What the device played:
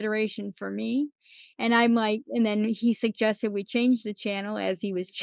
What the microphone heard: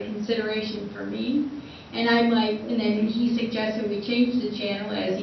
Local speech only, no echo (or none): none